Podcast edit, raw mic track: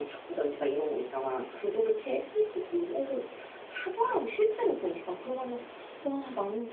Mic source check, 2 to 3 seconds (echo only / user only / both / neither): echo only